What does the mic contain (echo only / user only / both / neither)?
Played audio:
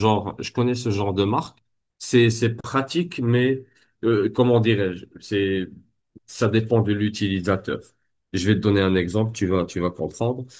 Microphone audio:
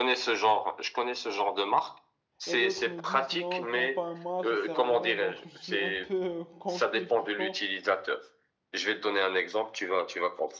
both